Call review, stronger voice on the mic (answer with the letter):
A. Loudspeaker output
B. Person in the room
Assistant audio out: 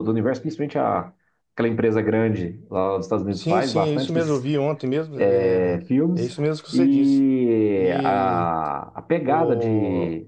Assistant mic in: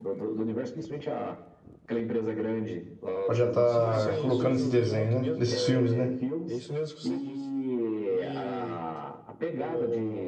B